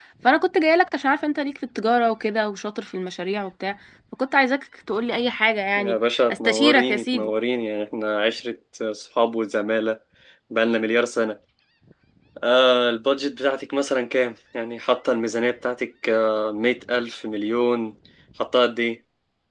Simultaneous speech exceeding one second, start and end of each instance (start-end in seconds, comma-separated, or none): 5.8-7.3